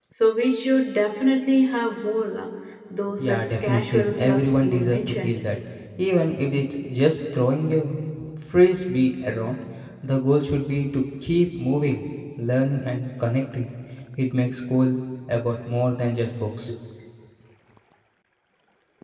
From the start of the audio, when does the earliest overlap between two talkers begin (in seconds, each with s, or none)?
3.2 s